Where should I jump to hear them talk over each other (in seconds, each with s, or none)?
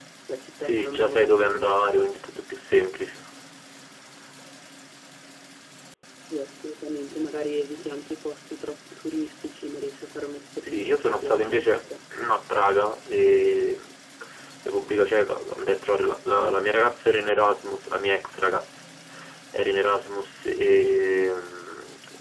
0.6 s